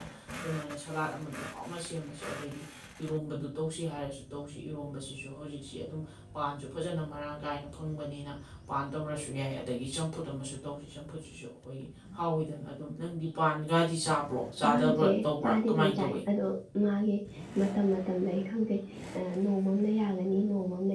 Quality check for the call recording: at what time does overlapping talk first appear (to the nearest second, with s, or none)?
15 s